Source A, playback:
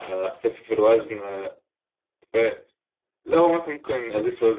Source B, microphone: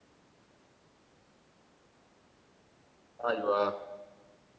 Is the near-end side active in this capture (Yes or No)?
Yes